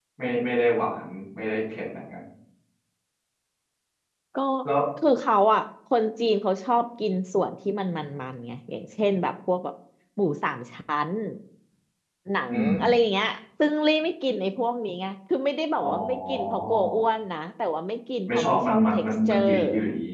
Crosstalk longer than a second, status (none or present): present